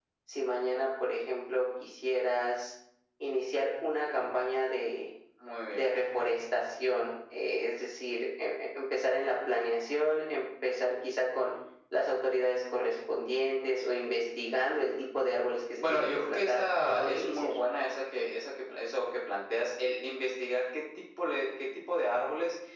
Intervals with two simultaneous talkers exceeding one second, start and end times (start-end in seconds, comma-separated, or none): 15.8-17.5